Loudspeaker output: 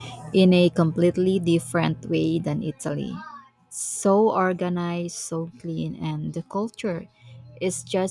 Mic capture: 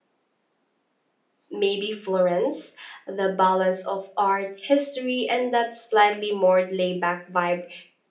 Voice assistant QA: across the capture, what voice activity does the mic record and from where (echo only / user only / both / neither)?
user only